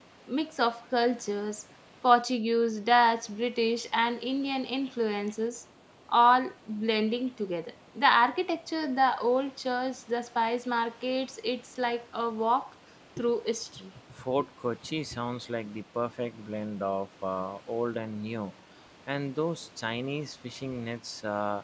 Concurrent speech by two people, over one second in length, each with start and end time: none

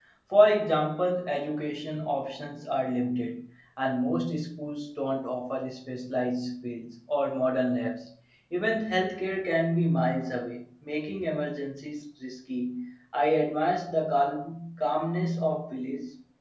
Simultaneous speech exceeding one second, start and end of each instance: none

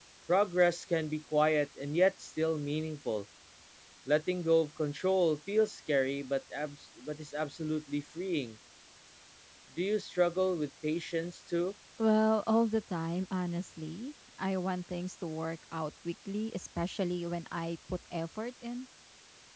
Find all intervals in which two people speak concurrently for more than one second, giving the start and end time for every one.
none

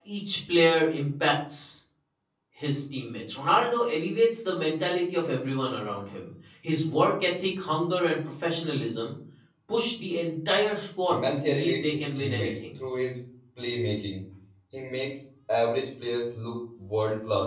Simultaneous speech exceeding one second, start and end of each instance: 11.1-12.6

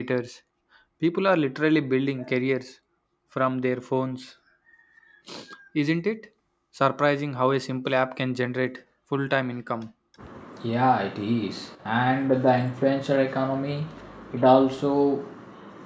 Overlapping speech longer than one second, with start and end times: none

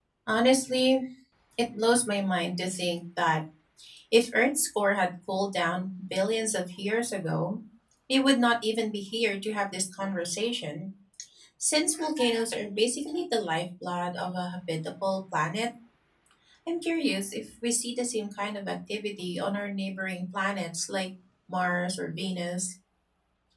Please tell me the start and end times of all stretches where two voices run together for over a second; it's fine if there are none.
none

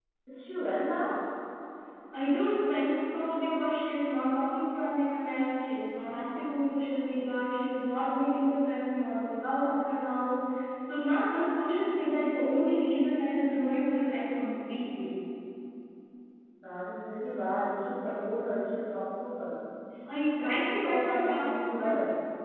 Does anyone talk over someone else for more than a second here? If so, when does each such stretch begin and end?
20.4-21.9

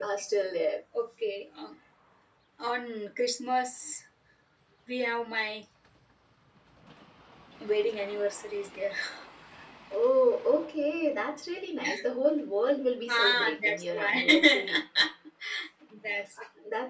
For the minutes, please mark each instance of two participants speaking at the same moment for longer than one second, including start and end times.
13.1-14.6

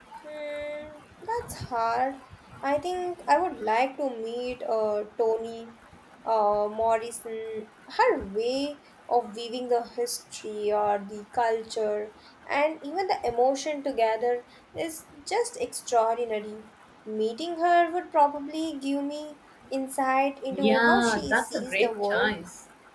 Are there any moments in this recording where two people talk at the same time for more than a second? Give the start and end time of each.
20.6-22.3

